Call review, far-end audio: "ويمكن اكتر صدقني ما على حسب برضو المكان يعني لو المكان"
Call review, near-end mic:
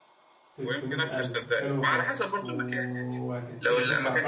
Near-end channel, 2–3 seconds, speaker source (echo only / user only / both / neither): both